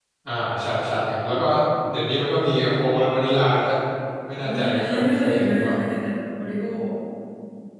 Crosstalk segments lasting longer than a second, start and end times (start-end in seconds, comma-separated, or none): 4.4-5.7